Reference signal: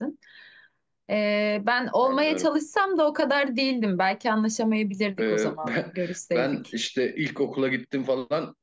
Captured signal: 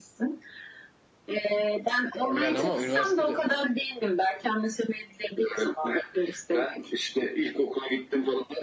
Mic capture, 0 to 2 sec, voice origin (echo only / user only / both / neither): echo only